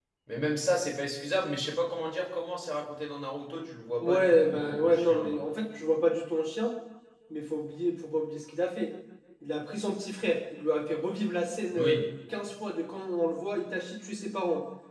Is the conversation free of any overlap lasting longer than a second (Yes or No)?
No